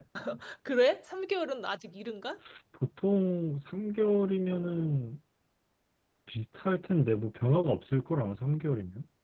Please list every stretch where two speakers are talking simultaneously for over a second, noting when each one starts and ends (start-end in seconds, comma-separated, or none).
none